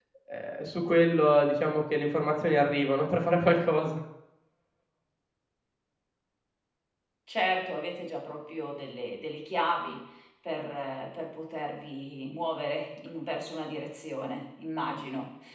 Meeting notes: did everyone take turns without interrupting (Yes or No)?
Yes